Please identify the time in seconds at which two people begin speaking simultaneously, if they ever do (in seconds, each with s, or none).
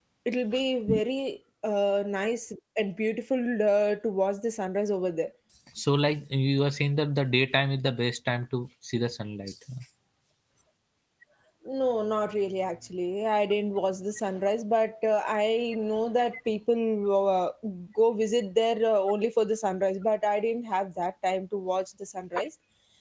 none